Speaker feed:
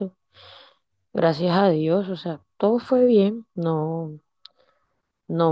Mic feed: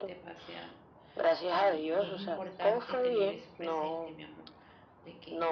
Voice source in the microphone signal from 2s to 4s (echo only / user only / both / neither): both